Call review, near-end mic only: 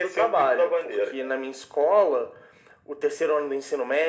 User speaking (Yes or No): No